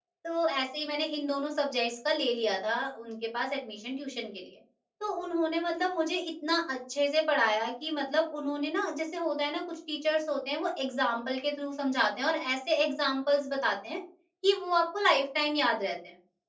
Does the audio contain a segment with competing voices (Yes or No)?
No